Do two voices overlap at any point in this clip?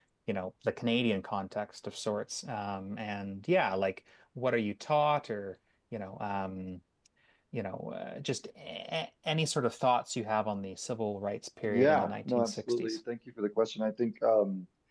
Yes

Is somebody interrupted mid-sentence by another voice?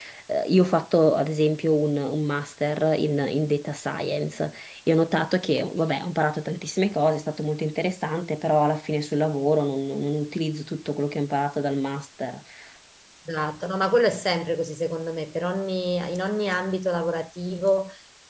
No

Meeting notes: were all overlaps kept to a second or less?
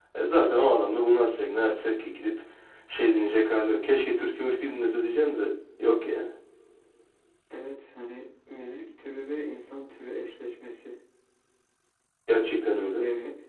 Yes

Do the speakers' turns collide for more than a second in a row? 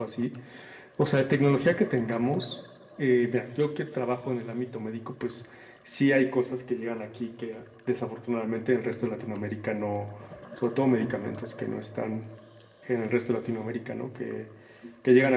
No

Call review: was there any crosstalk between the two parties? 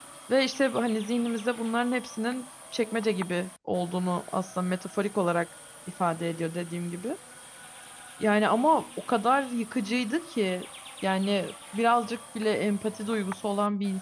No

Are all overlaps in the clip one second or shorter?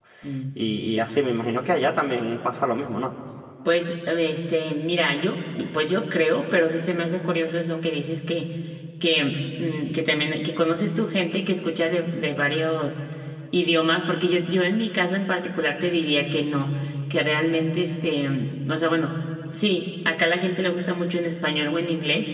Yes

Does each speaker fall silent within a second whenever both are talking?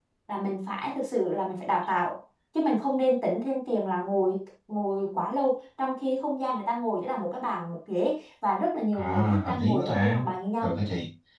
No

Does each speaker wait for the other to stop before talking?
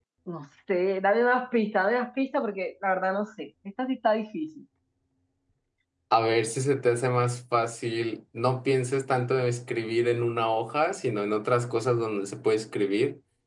Yes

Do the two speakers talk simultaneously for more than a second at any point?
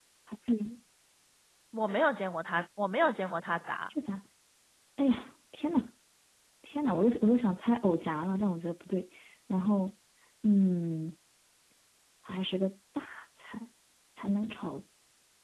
No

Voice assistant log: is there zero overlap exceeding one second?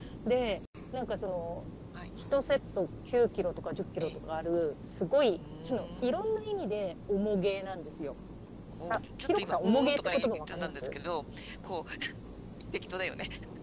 No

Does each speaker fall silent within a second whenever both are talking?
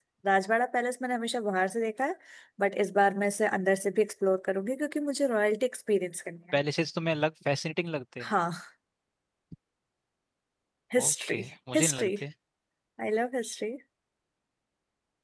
Yes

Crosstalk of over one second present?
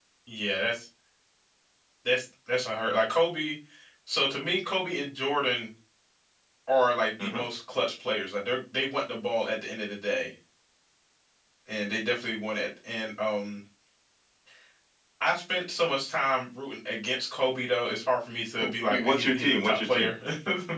Yes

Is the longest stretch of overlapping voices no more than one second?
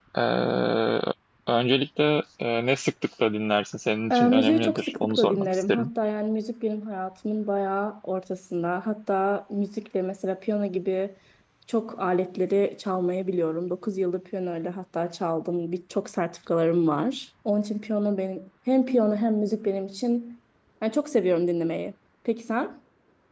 No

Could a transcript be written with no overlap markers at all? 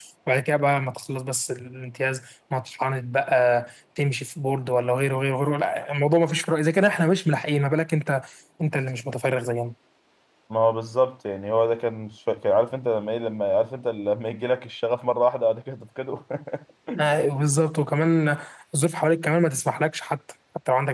Yes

